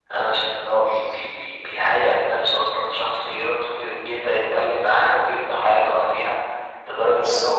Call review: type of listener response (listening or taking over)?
listening